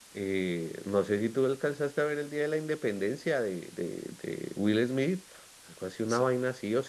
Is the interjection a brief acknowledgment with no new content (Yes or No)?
Yes